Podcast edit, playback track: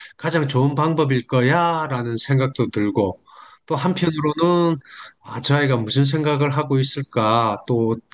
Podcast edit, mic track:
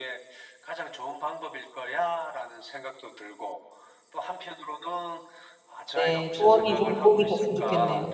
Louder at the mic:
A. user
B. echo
A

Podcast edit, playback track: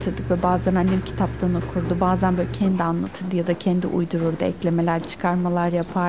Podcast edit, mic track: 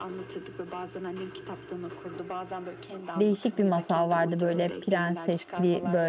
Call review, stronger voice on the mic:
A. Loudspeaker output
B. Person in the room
B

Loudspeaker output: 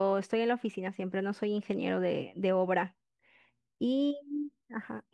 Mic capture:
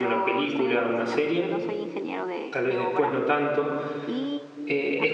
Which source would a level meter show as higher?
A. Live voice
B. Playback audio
A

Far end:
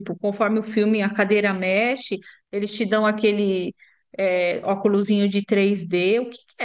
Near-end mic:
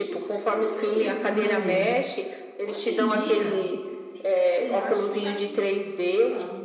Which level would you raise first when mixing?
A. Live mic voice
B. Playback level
A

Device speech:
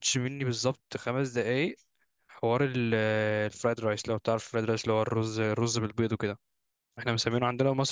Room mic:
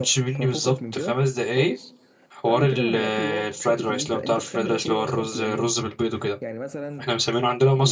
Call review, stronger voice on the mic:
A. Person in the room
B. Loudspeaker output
B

